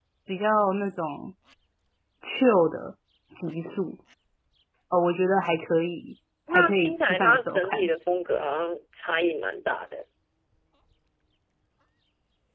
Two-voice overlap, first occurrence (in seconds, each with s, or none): 6.5 s